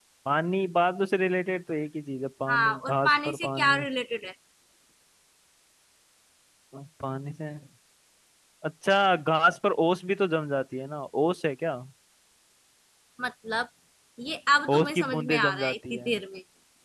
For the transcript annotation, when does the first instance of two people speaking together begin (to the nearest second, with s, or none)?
2 s